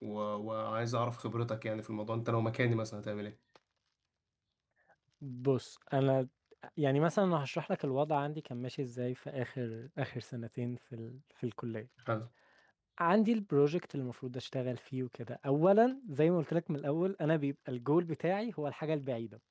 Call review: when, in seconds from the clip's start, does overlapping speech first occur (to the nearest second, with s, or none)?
none